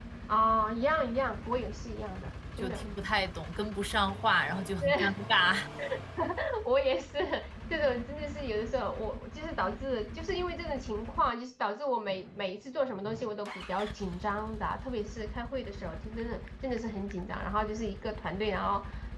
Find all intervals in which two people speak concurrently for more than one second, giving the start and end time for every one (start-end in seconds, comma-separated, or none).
none